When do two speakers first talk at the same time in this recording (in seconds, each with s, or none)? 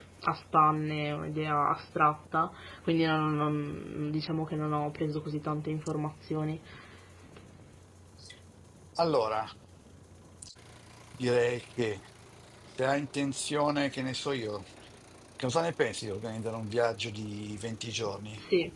none